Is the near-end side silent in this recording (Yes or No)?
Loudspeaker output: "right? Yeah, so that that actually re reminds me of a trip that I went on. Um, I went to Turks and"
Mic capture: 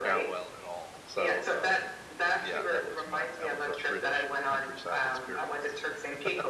No